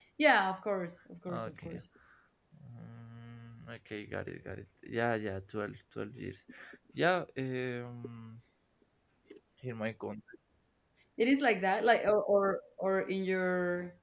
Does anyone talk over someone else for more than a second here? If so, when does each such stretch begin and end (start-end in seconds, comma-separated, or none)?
none